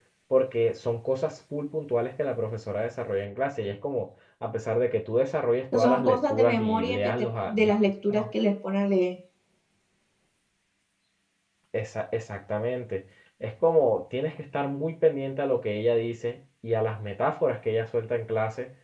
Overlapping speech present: Yes, from 5.7 s

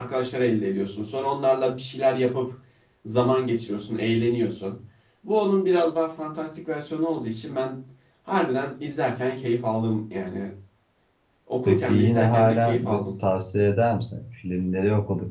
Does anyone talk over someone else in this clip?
Yes, from 11.6 s

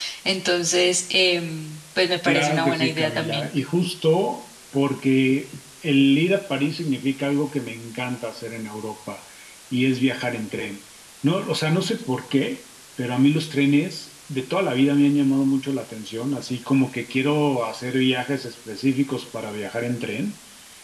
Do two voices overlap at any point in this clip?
Yes, from 2.2 s

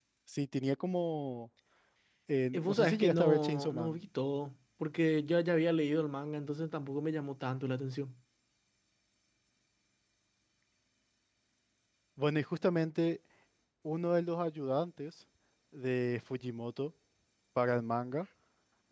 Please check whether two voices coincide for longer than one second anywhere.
Yes, from 2.5 s

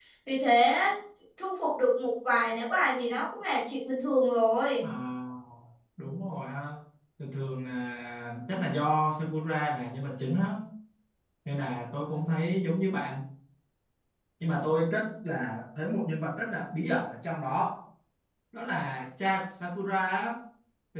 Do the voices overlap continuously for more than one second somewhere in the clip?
No

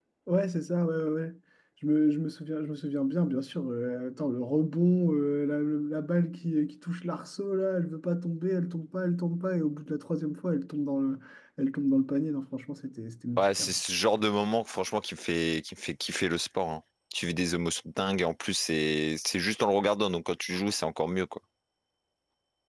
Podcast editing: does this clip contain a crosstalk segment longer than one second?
No

